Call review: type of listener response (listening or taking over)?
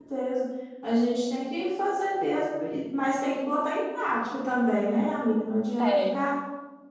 listening